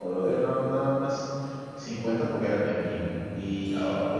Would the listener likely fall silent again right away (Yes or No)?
Yes